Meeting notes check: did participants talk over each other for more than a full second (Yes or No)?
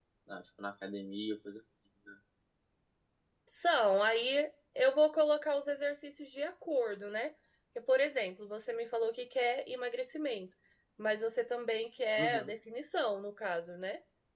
No